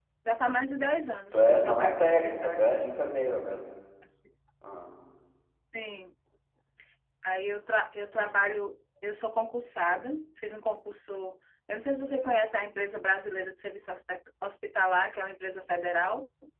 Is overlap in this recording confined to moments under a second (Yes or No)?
No